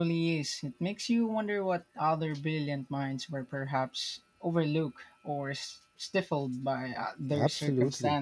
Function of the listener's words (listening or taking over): taking over